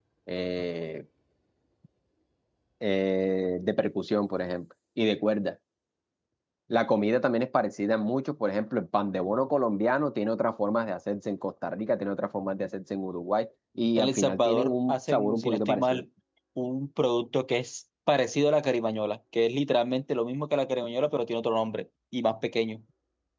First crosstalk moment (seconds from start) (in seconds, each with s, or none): 14.0 s